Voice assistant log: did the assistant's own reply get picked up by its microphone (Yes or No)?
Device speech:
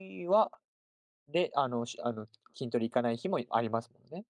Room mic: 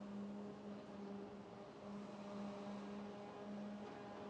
No